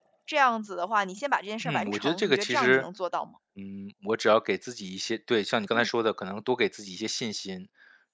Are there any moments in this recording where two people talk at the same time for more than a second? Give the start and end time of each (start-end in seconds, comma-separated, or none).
1.6-2.8